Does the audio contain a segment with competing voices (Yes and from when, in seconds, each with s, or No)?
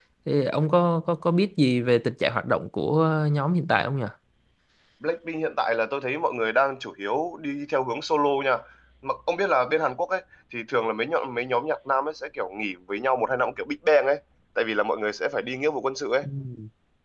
No